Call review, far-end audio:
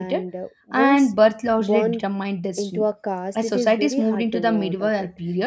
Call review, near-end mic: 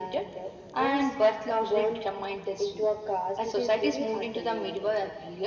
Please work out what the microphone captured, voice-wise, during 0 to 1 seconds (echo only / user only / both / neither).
echo only